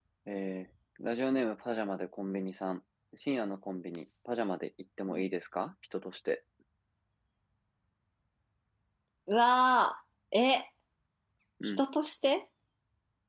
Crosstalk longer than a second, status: none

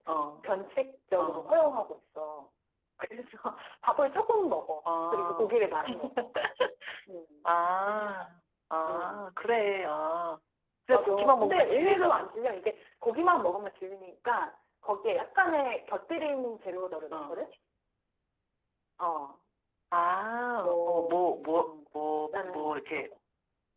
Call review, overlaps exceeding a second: present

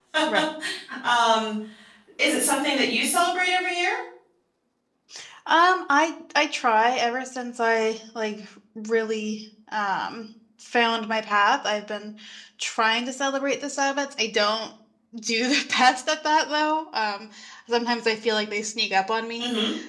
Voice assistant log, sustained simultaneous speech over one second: none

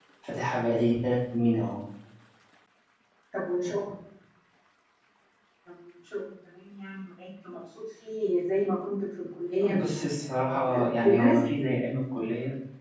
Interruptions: present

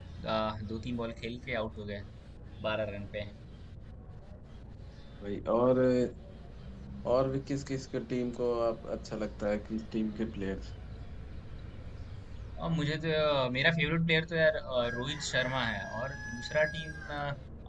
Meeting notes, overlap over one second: none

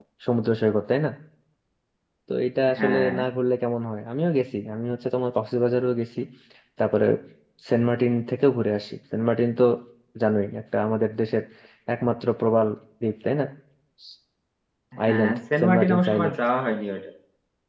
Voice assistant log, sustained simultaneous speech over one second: present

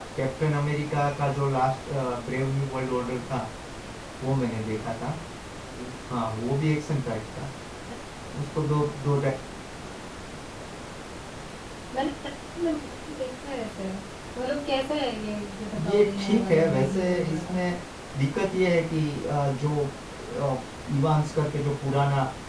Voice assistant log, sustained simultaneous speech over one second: present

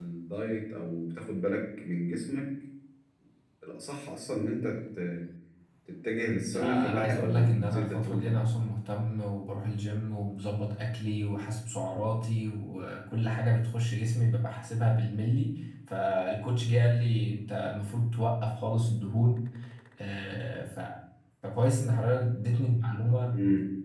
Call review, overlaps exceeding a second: present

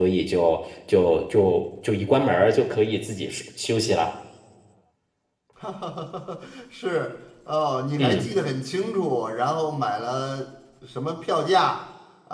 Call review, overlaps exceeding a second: none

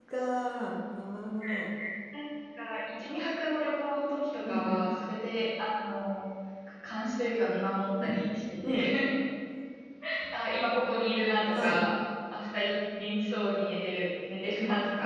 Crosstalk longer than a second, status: none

